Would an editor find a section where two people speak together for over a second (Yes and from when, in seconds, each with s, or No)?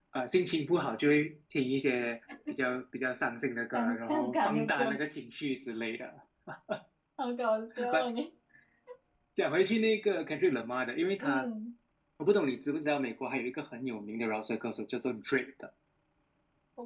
Yes, from 3.7 s